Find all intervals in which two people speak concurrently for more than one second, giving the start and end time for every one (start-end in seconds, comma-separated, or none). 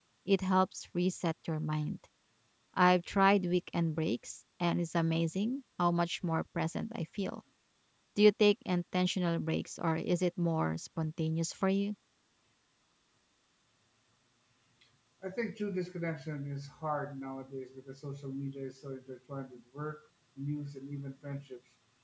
none